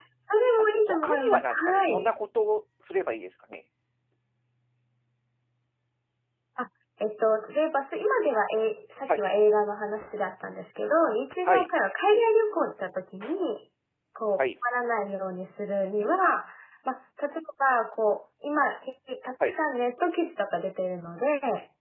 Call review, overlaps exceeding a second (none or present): present